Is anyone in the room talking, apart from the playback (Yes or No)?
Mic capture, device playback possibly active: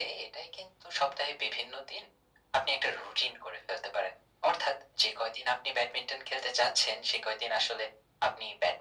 No